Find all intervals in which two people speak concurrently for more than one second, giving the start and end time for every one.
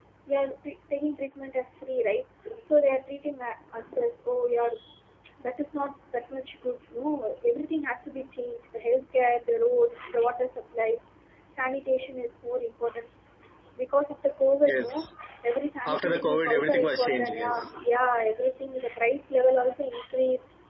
15.8-17.6

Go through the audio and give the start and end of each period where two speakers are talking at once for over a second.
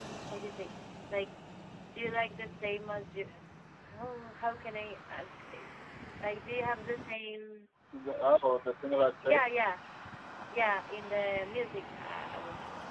none

